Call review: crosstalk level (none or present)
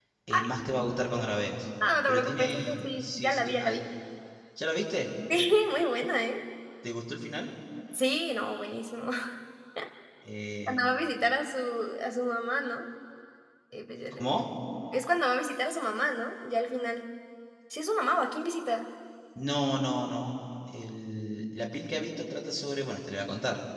present